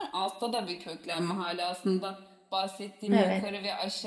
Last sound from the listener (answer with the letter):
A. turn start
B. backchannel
B